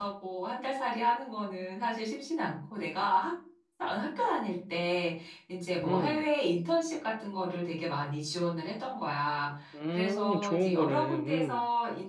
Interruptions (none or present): present